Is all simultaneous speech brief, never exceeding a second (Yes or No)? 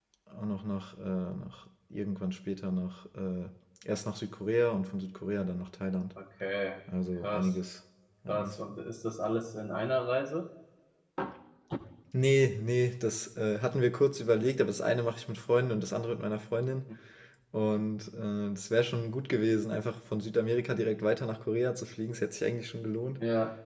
Yes